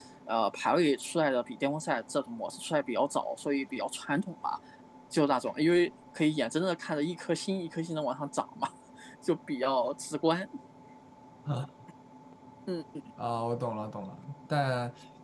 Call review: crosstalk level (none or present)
none